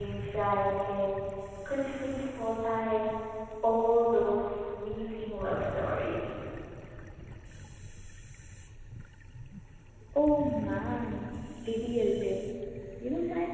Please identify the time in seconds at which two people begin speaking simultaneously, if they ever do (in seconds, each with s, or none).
none